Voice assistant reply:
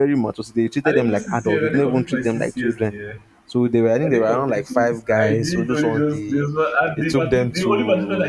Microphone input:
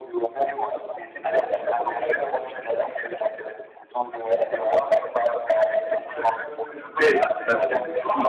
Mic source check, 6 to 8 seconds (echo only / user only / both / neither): both